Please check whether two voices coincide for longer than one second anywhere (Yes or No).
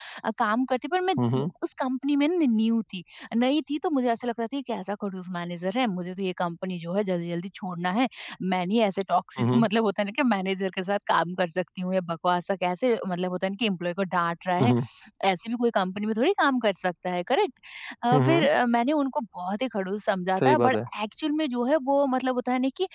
No